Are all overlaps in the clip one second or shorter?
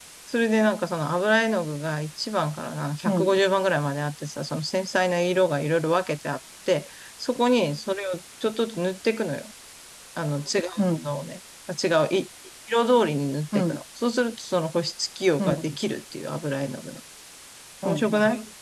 Yes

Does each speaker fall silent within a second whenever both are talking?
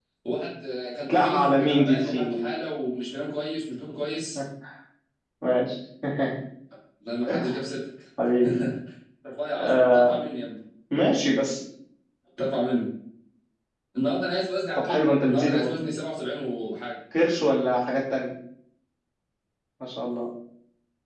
No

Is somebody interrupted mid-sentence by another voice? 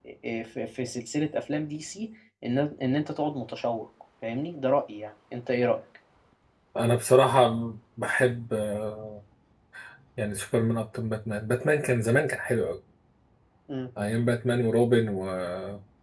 No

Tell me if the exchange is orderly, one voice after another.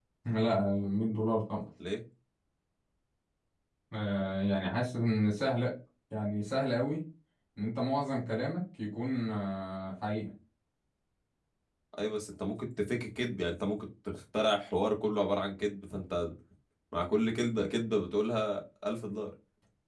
Yes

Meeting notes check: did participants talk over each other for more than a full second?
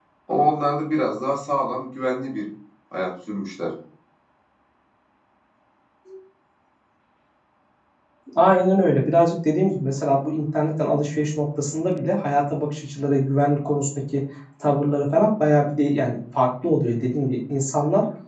No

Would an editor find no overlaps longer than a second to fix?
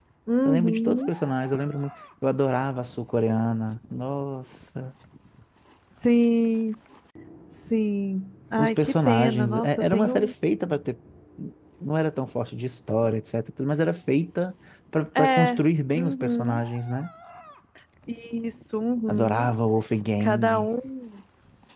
No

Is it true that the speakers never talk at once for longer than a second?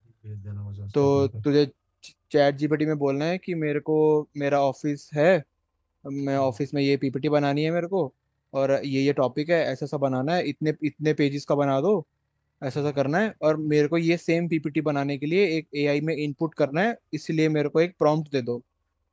Yes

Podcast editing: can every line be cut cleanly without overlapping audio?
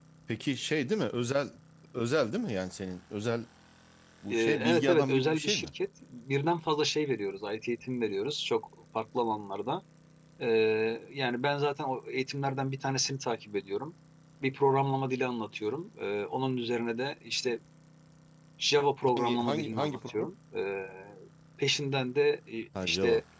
No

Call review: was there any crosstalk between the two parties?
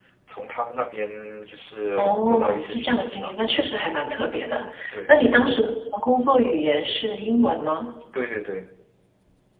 Yes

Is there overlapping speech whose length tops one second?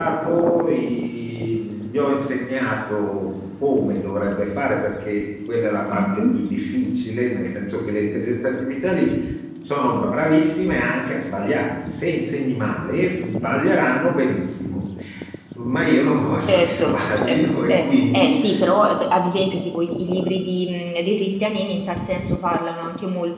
Yes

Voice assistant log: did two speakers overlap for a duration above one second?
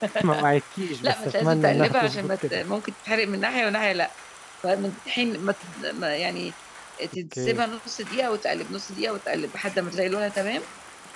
Yes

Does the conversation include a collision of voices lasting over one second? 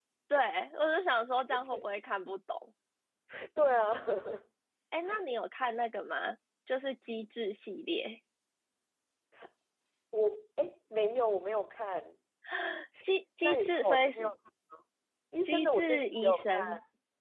Yes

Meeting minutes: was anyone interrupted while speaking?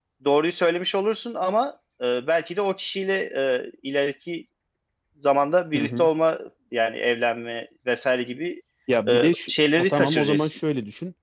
Yes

